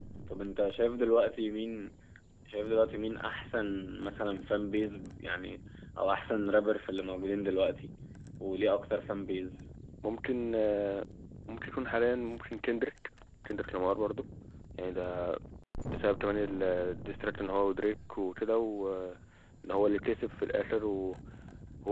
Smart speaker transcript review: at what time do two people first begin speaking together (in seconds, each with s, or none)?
none